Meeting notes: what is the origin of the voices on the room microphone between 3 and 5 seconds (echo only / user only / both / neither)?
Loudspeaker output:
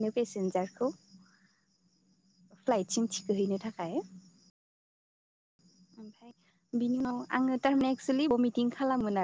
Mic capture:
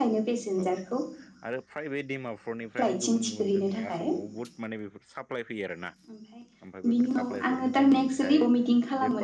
both